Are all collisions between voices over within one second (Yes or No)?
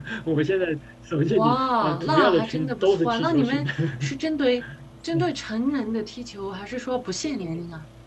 No